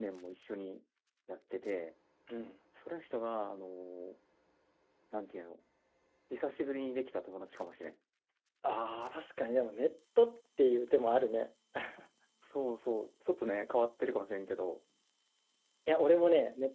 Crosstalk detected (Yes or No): No